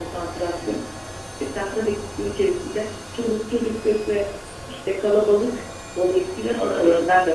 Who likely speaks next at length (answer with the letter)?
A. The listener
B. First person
A